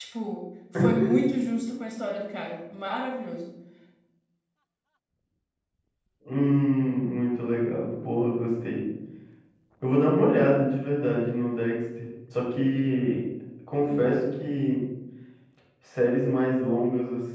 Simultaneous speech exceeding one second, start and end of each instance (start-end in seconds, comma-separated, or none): none